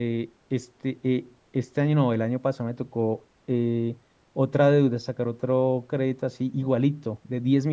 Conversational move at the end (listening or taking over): listening